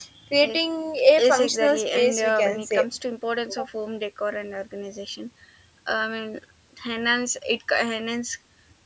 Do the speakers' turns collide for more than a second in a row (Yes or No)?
Yes